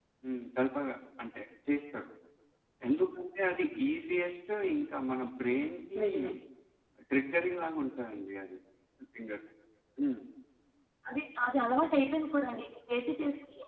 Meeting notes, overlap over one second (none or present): none